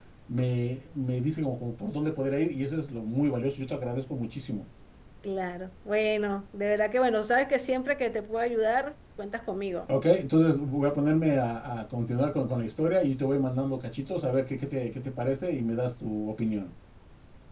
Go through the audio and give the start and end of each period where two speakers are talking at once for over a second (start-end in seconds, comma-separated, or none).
none